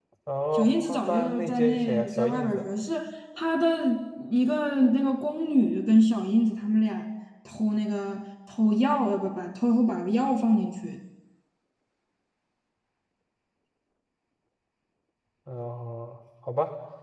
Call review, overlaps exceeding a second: present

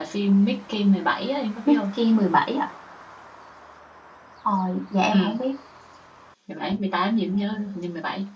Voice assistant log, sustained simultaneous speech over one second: none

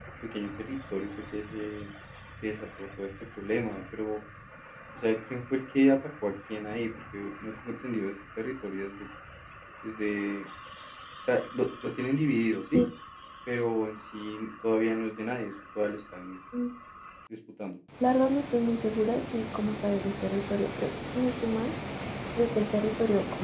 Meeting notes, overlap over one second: none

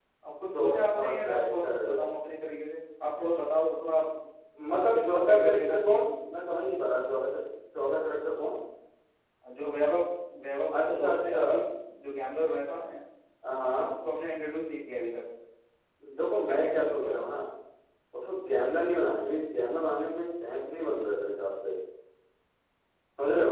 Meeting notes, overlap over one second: present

